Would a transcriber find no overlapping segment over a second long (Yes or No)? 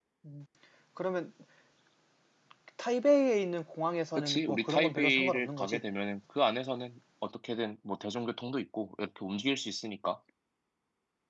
No